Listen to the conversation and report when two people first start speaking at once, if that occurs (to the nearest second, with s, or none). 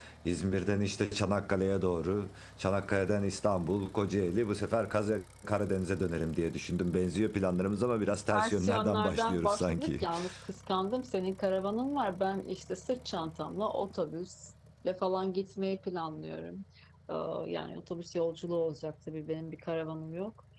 8 s